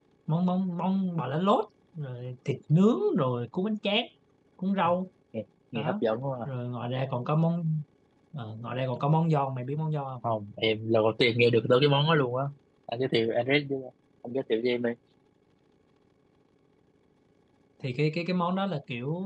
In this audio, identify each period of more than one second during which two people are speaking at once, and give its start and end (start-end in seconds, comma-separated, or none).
none